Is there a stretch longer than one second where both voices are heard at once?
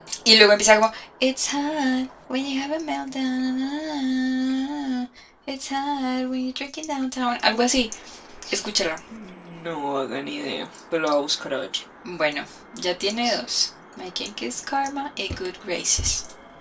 No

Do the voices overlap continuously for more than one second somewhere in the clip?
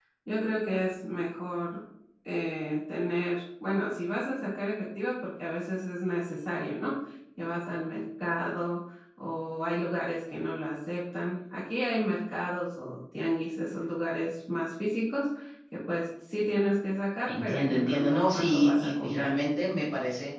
Yes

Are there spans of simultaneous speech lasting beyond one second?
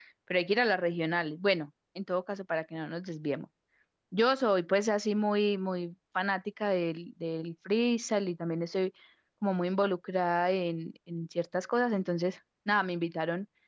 No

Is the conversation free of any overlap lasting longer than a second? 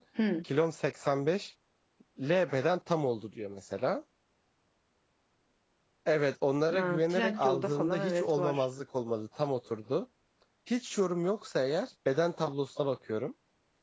No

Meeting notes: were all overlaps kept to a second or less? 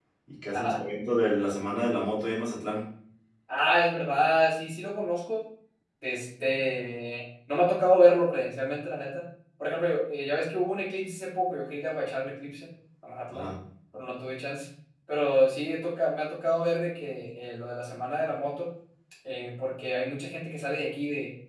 Yes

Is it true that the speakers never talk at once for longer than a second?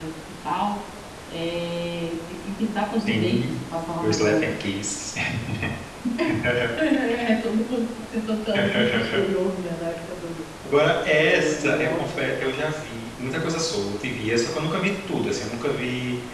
No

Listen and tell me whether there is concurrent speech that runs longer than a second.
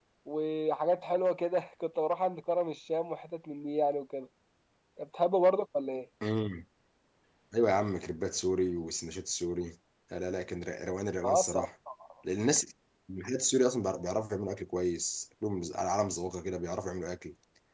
No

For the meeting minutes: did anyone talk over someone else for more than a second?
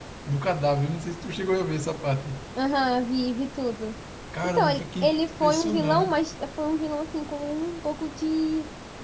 Yes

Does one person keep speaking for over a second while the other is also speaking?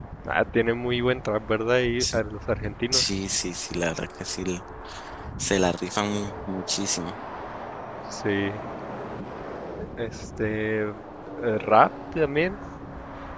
No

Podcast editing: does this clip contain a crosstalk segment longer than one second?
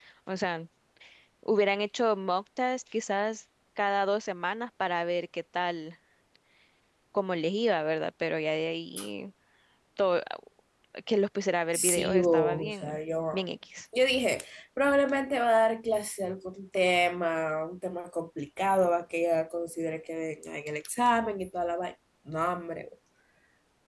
Yes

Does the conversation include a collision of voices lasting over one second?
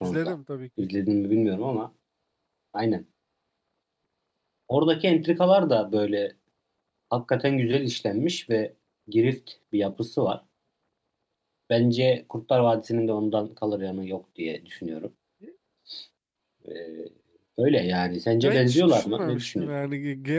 Yes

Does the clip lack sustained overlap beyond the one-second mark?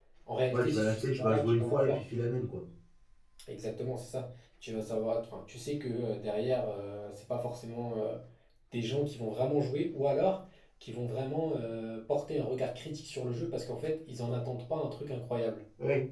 No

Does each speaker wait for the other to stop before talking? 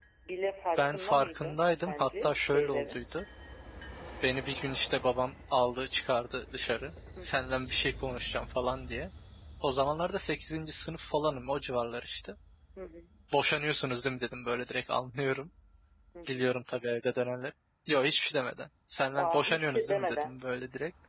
No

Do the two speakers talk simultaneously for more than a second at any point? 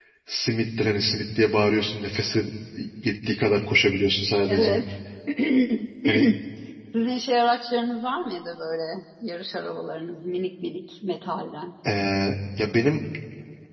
No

